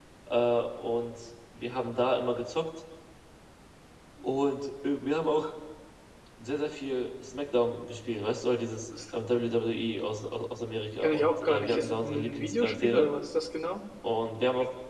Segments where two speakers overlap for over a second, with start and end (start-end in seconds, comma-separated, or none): 11.0-13.1